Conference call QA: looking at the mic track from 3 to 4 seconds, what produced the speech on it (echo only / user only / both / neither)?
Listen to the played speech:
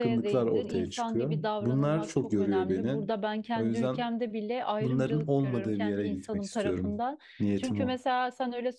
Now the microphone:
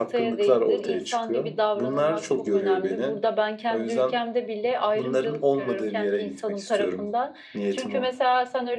echo only